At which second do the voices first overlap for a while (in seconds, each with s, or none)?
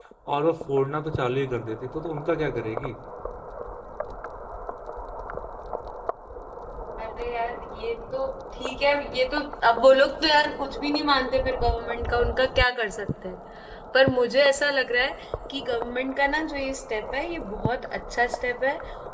none